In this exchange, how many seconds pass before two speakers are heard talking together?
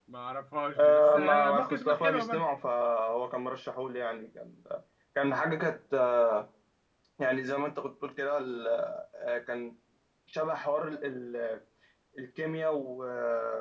1 s

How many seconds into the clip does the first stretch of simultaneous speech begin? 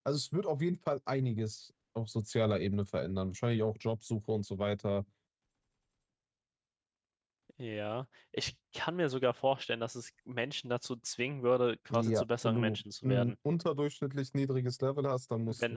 12 s

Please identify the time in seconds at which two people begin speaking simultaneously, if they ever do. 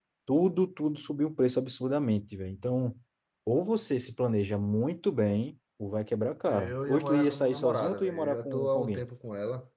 6 s

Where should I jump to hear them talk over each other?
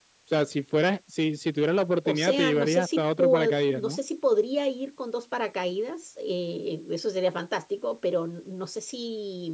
2 s

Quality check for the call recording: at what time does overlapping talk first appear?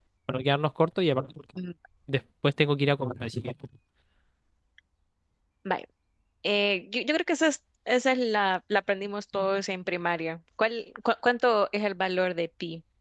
none

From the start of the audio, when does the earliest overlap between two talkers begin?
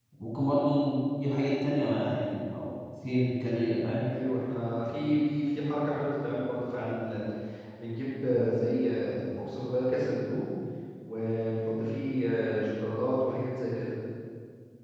none

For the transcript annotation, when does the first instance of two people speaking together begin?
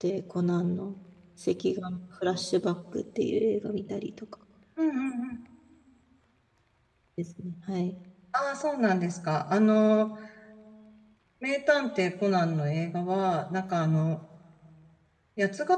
none

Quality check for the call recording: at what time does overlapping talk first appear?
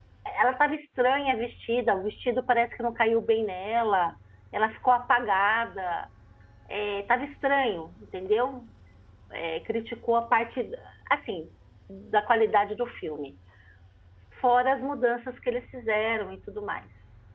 none

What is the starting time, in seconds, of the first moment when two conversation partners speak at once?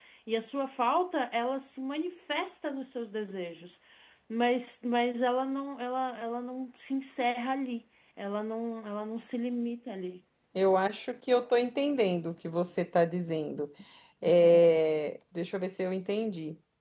none

